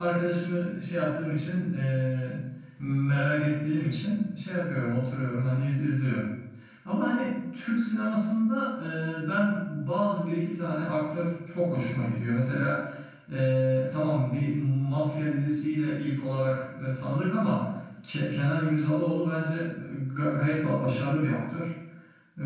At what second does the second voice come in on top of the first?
none

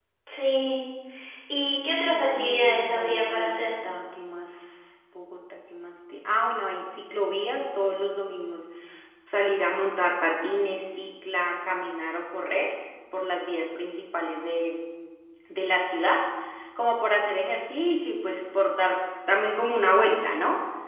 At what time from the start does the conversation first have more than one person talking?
2.1 s

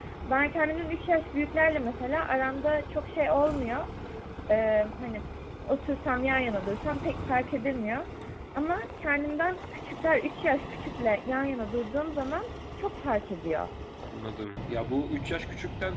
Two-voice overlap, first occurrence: none

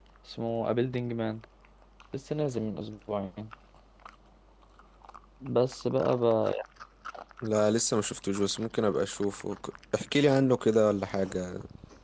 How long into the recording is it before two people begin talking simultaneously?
none

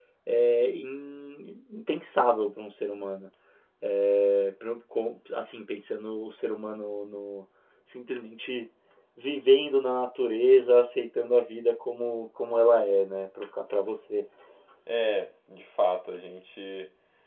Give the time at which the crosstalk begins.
none

